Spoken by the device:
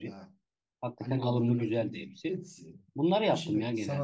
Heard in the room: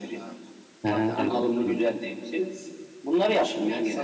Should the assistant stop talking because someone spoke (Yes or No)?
Yes